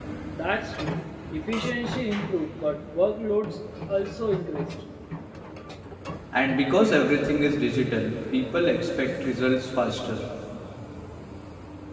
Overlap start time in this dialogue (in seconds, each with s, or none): none